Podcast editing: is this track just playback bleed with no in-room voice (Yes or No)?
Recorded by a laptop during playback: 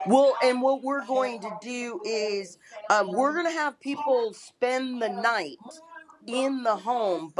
No